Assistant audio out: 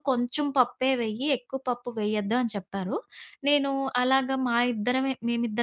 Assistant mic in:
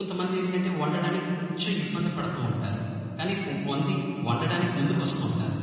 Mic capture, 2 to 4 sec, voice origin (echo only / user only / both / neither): user only